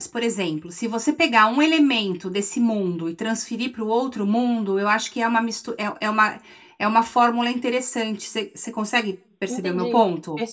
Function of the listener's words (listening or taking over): taking over